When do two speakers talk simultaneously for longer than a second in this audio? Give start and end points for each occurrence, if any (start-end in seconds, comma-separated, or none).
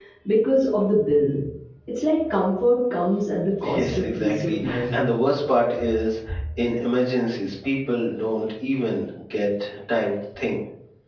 3.7-4.9